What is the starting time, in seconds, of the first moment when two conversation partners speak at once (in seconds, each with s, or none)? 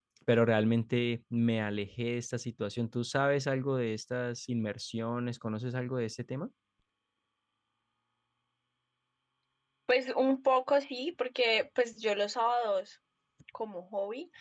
none